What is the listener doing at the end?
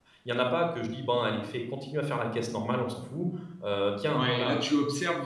taking over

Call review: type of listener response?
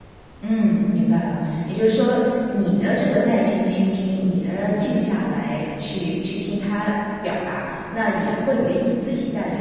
listening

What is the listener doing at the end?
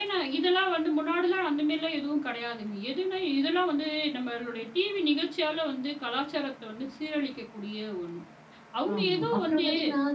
taking over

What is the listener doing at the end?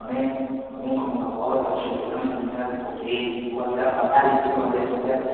listening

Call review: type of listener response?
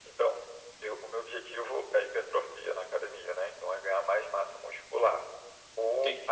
listening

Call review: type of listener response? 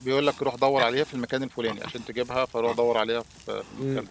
taking over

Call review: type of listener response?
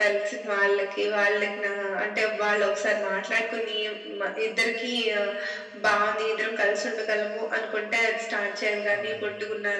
listening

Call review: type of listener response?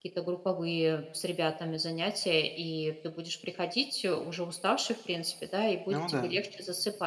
listening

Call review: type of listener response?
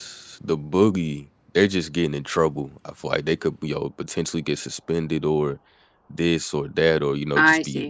listening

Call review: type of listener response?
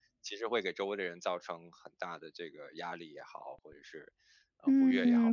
taking over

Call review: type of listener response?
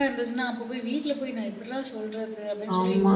listening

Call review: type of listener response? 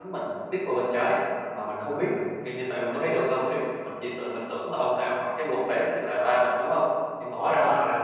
taking over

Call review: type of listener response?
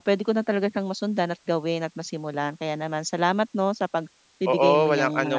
taking over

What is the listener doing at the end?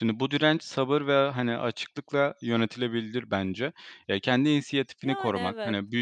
listening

